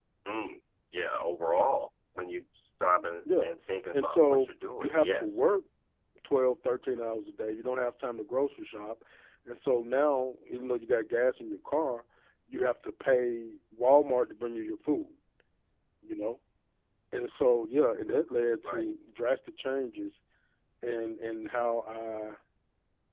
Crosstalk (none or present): present